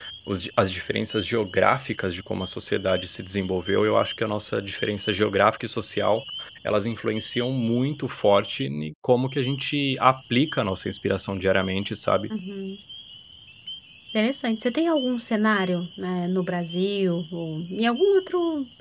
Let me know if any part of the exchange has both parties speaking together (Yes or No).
No